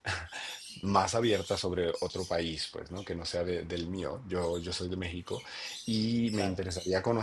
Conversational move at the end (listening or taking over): listening